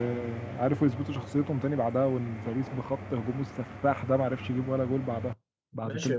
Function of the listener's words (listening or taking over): taking over